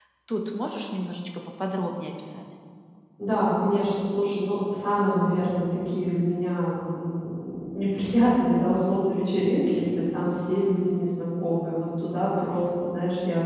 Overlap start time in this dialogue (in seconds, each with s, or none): none